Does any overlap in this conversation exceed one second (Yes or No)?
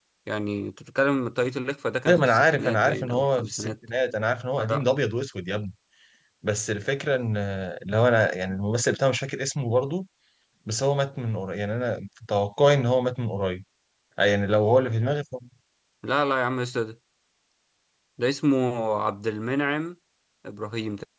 Yes